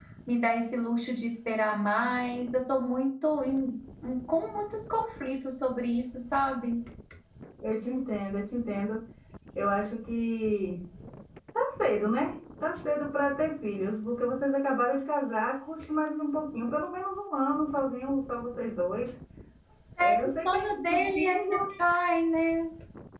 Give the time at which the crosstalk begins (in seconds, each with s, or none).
20.0 s